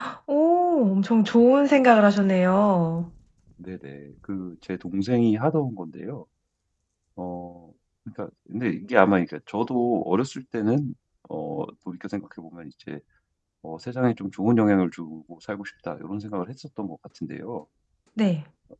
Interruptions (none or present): none